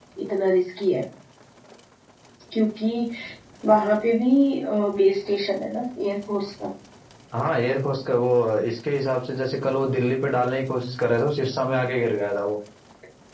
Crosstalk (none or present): none